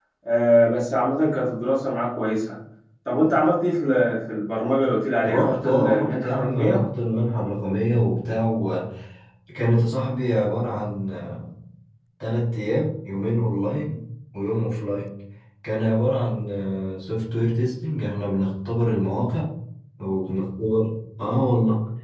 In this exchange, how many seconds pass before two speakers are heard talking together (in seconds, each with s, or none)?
5.2 s